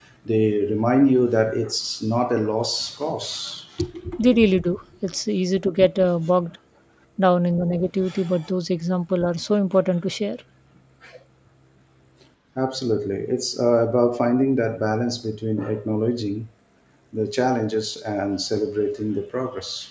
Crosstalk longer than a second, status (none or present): none